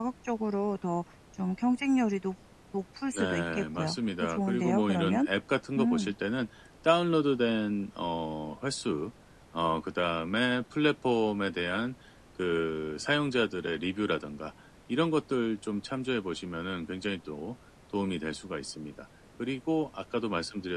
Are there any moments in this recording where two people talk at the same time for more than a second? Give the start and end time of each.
3.2-5.3

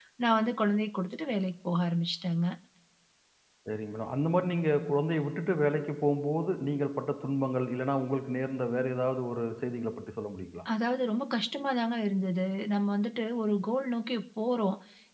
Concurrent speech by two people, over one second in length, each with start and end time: none

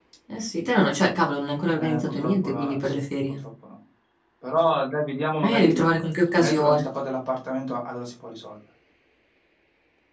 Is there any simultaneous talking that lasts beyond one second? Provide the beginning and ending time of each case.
1.8-3.4

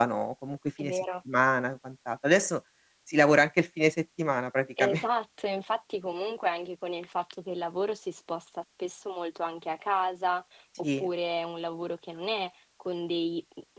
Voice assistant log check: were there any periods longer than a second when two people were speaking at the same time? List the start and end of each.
none

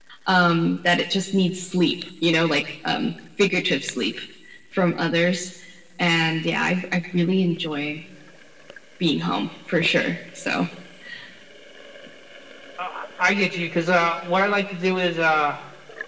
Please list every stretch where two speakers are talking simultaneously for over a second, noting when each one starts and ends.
none

